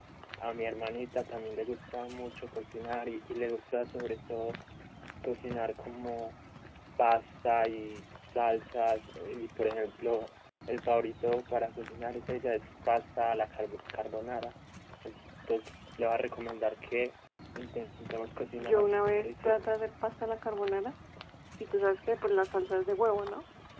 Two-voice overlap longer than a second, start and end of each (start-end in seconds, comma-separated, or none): 18.6-19.8